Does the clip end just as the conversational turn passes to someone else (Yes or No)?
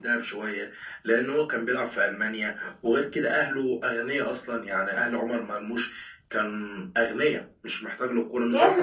Yes